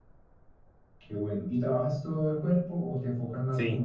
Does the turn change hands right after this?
Yes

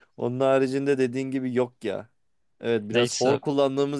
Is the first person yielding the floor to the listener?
No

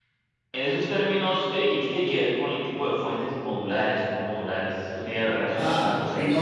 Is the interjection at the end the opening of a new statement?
Yes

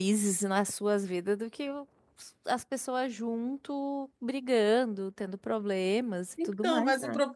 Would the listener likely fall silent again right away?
No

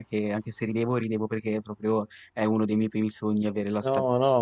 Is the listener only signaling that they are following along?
No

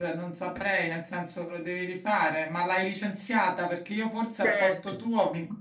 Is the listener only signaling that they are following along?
Yes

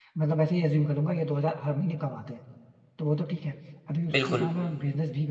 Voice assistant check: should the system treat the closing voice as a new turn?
No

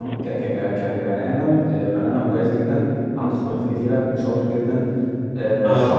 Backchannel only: Yes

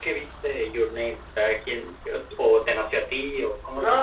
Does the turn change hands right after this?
Yes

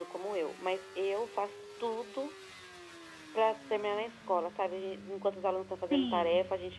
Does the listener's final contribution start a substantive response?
No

